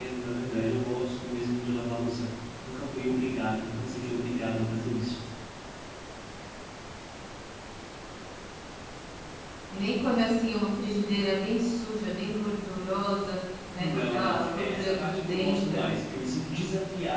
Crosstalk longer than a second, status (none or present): present